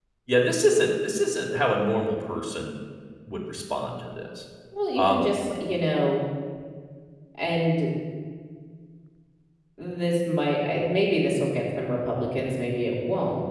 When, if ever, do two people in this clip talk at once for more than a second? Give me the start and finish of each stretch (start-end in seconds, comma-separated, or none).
none